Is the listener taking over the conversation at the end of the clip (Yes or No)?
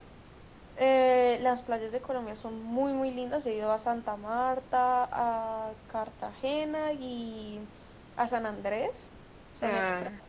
No